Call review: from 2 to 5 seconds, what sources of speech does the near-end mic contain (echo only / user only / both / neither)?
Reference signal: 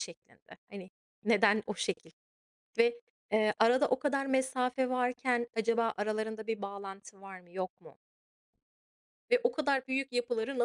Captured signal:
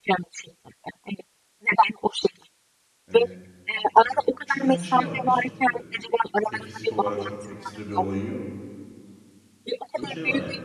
both